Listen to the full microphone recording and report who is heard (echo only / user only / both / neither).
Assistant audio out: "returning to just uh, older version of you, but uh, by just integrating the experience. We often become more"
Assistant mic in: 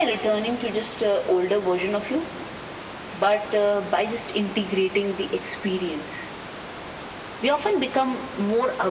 echo only